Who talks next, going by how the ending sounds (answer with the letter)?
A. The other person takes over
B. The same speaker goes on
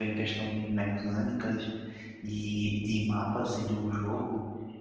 B